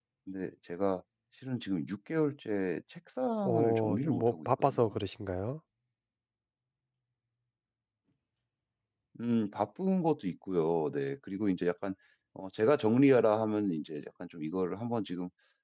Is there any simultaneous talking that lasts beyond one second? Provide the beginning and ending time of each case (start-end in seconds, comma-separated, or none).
3.4-5.0